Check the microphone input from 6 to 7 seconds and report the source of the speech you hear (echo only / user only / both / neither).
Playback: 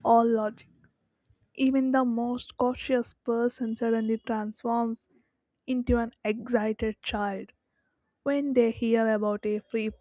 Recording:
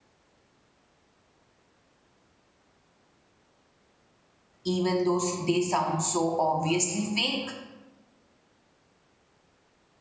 user only